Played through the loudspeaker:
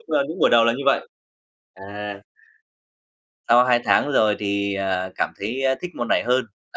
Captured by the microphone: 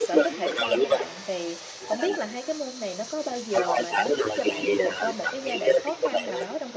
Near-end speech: present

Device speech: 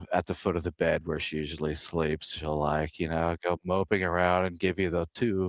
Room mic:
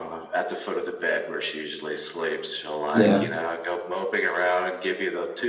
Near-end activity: present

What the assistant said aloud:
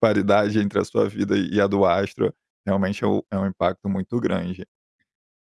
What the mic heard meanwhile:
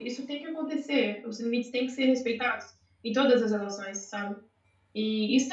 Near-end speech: present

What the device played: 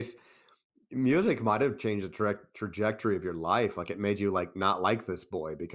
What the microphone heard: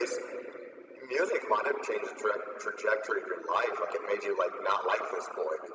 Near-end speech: none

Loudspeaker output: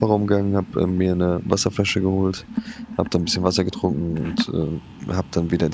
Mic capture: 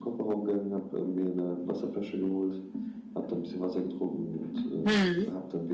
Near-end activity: present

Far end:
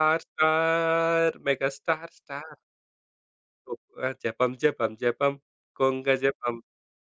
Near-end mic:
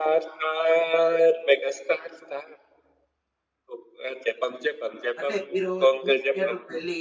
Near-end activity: present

